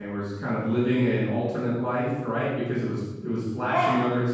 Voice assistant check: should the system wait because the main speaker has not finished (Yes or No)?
Yes